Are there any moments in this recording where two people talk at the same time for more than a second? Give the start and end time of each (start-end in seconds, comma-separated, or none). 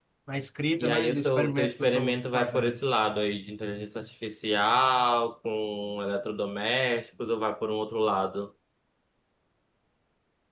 0.8-2.8